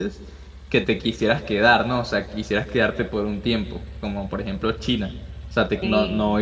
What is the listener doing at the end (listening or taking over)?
listening